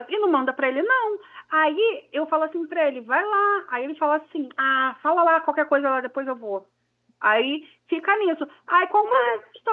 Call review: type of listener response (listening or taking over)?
listening